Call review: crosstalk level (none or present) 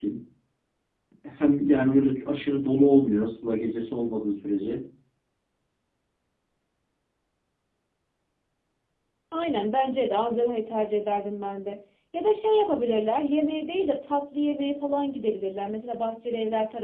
none